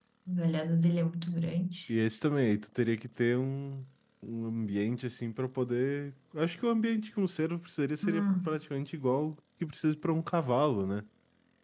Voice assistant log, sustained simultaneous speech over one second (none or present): none